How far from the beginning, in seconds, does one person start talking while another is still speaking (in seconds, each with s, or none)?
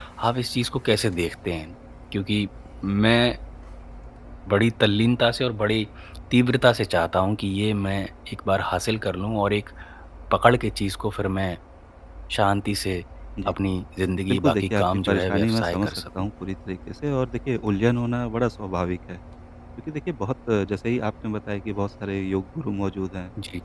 14.3 s